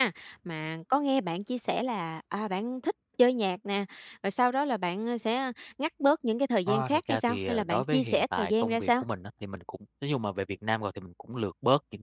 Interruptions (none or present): present